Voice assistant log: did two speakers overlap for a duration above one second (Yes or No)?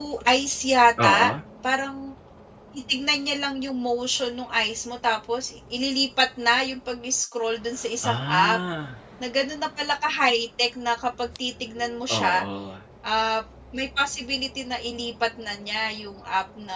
No